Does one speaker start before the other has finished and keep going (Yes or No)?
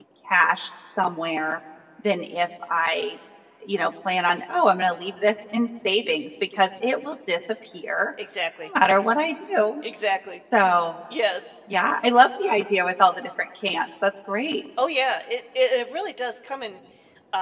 No